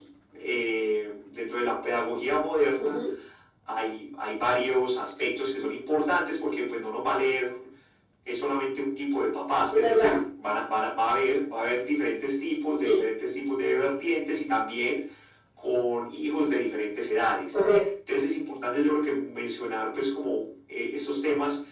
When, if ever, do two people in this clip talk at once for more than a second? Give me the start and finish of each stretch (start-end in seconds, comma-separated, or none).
none